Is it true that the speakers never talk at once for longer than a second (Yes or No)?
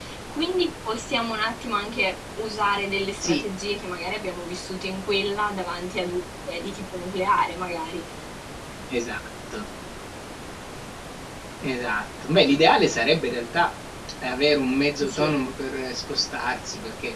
Yes